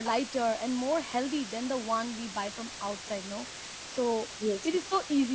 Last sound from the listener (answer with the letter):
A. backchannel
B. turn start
A